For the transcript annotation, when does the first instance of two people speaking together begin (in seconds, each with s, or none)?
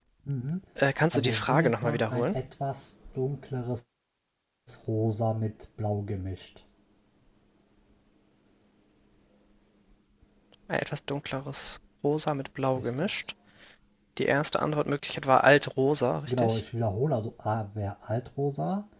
1.1 s